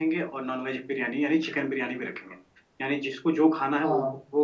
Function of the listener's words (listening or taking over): listening